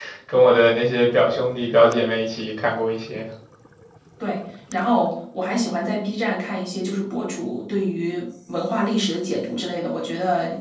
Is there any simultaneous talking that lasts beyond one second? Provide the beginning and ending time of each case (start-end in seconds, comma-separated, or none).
none